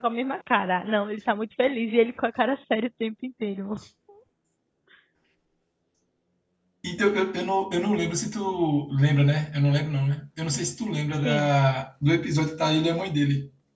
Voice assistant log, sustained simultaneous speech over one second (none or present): none